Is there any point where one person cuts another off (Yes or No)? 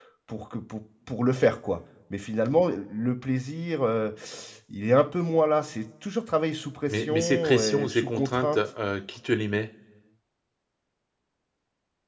Yes